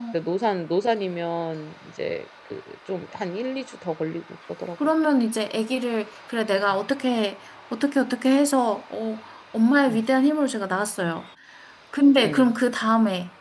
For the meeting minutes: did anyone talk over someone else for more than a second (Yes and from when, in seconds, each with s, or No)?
No